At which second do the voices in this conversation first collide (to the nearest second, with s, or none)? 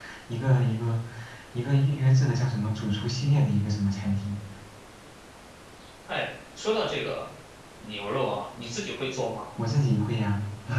none